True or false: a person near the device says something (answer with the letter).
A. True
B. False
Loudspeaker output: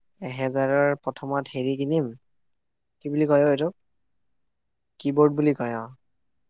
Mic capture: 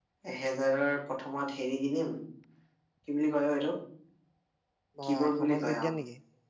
A